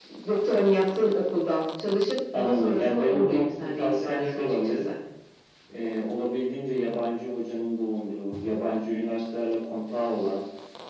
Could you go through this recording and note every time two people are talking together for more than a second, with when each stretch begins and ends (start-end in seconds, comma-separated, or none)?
2.3-4.8